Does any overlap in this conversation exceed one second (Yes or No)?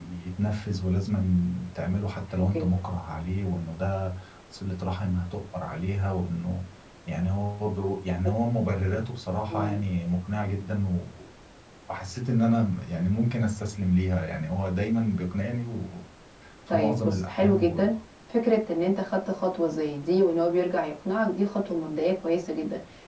Yes